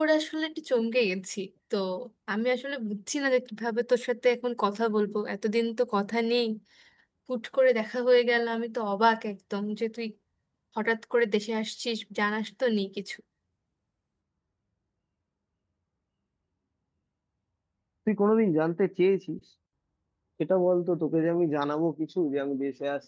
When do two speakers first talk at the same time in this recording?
none

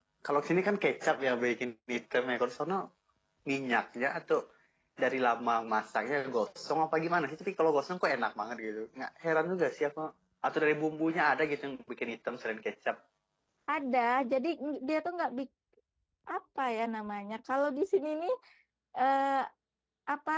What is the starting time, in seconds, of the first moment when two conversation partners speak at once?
none

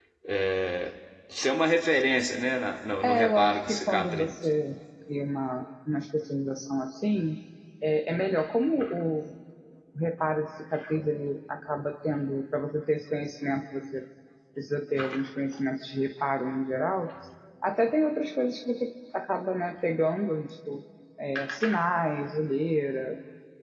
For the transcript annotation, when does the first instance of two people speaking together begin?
3.0 s

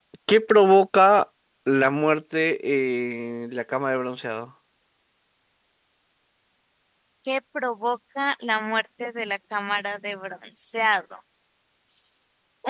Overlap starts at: none

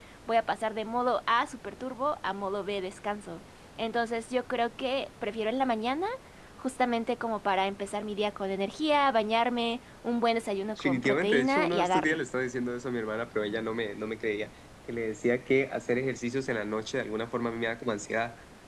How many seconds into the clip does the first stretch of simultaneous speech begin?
10.8 s

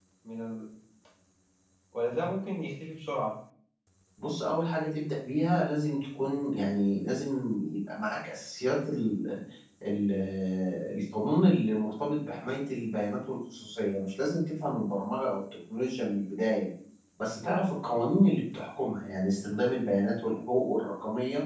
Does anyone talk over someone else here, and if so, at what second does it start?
none

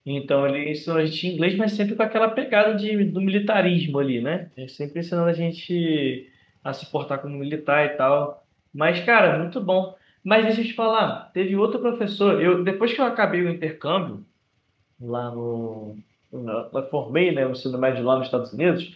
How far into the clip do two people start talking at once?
none

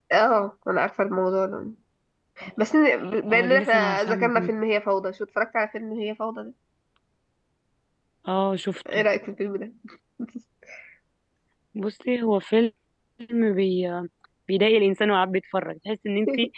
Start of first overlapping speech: 3.3 s

